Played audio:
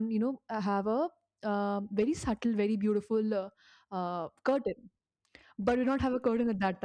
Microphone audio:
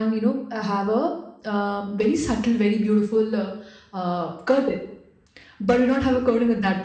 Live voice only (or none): none